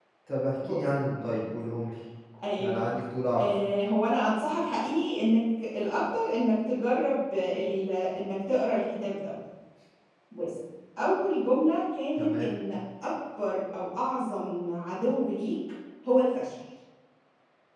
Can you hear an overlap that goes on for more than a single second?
No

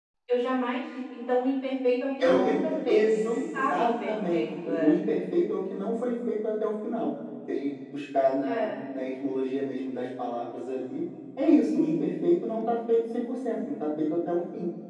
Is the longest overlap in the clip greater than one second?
Yes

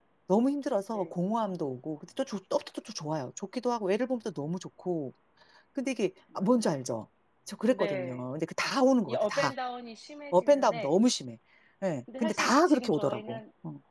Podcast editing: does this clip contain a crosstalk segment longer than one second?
Yes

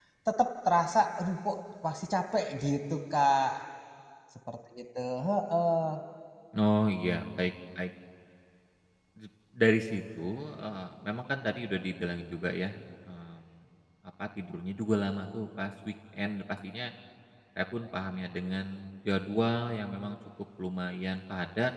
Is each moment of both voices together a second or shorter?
Yes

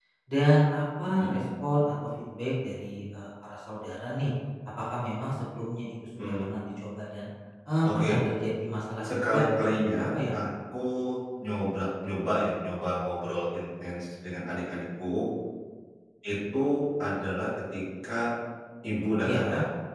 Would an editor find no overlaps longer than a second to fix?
No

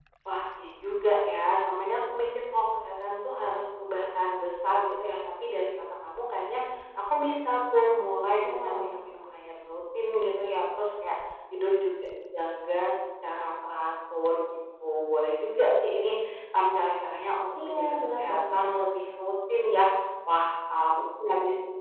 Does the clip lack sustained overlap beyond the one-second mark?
No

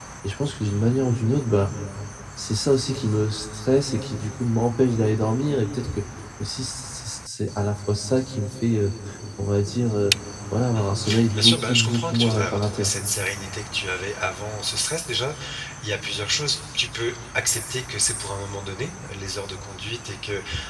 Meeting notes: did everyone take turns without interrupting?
No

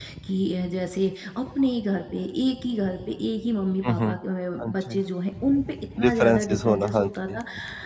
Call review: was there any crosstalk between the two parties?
Yes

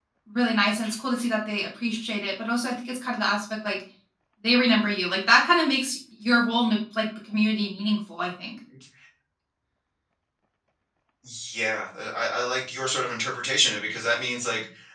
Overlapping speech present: No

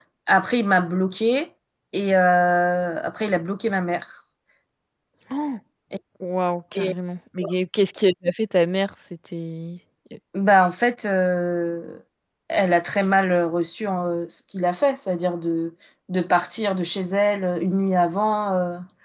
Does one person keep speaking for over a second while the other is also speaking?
No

